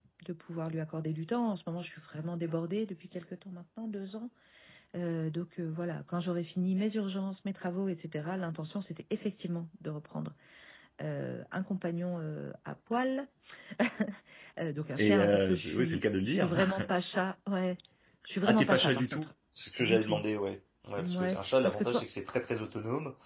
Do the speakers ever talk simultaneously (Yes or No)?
Yes